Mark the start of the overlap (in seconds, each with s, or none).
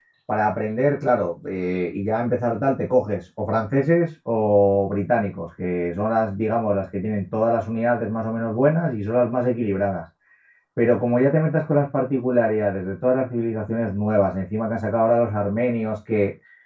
none